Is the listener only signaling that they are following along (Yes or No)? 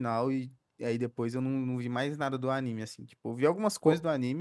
Yes